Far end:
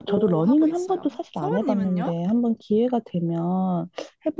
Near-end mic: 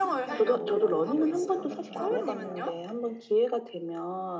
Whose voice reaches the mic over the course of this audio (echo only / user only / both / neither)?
both